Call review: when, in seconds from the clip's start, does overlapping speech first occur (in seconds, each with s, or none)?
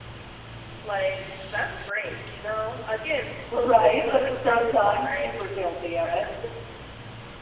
3.5 s